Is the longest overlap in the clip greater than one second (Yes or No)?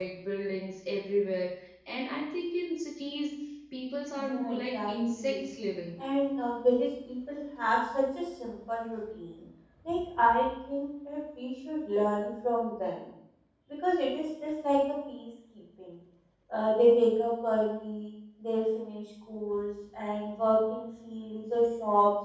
Yes